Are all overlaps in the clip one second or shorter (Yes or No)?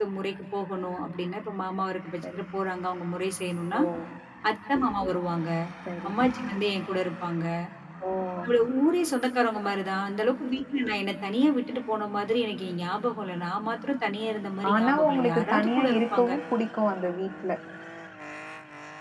No